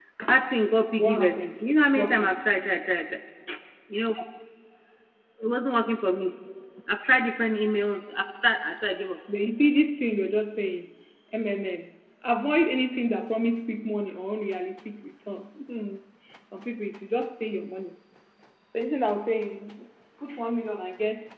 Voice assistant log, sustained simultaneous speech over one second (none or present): present